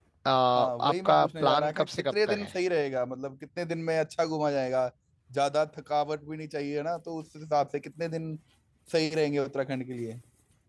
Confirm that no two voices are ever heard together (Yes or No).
No